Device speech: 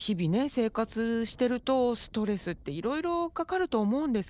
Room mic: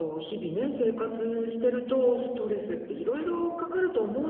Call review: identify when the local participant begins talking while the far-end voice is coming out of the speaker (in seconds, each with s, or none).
none